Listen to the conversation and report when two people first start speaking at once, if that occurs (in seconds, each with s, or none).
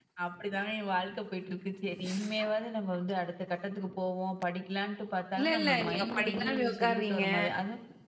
5.4 s